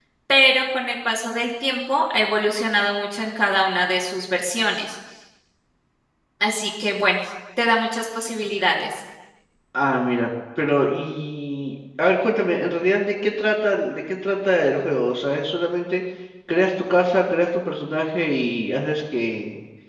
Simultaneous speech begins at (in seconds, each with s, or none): none